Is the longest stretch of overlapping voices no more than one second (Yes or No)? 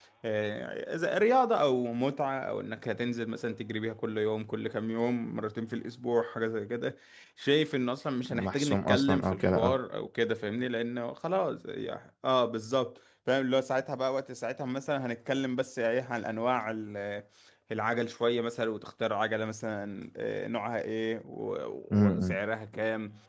No